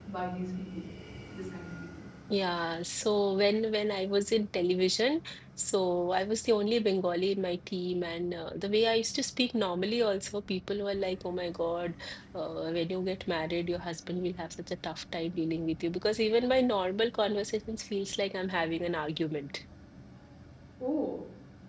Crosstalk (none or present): none